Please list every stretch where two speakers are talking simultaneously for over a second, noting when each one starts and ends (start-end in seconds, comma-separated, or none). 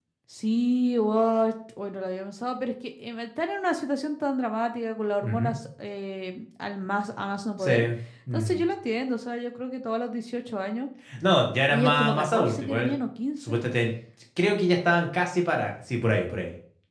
11.7-12.9